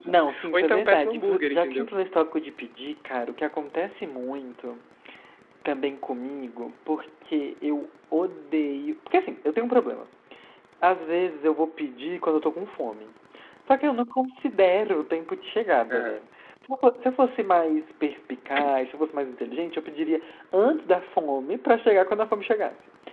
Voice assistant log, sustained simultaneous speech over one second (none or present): present